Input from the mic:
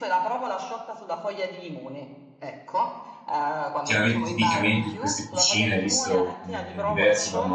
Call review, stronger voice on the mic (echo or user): user